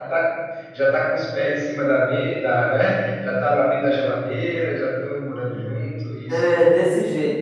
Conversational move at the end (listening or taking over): taking over